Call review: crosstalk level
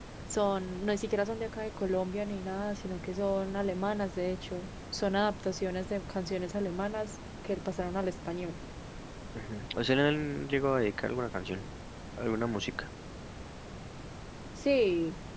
none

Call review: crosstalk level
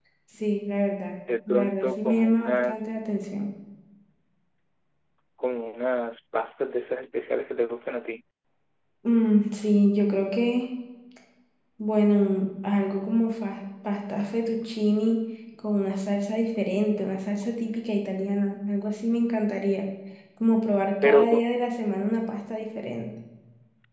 present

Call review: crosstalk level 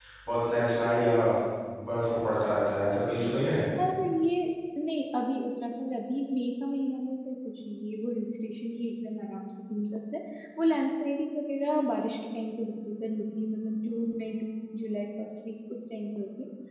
none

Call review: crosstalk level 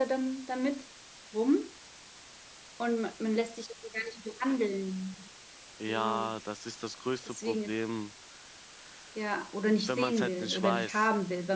present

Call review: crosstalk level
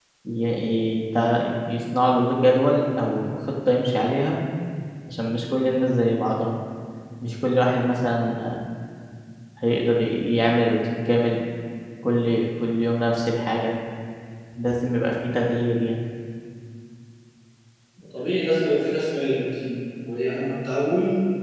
none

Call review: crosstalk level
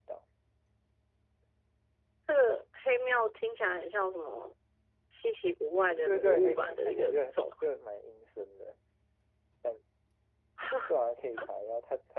present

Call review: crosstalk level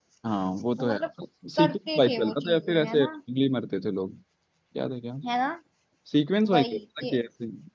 present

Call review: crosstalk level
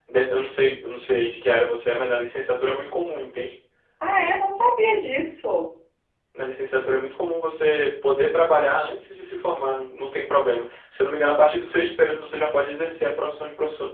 none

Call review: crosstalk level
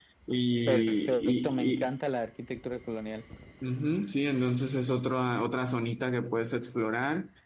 present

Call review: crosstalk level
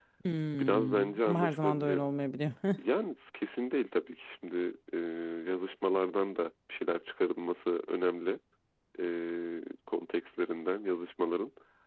present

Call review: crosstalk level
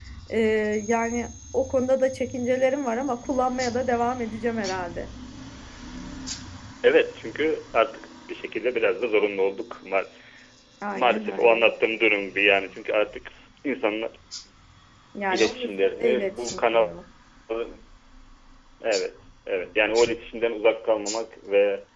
present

